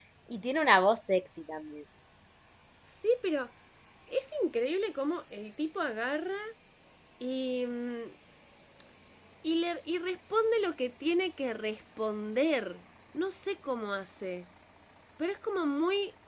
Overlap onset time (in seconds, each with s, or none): none